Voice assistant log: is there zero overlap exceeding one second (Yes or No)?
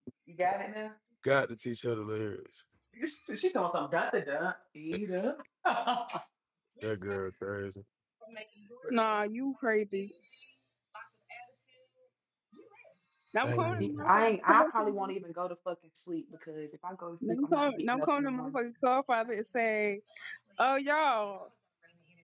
No